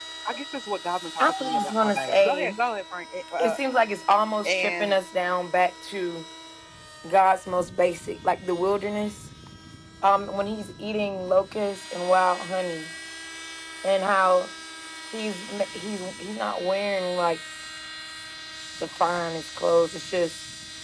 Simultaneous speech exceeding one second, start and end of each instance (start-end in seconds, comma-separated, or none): 1.2-2.5